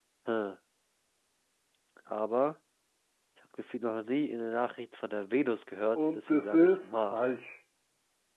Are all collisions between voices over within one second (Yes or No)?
No